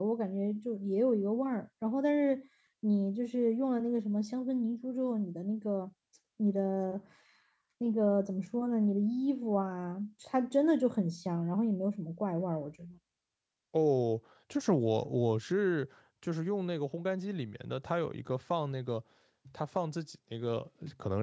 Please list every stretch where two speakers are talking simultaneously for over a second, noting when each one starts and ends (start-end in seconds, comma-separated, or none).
none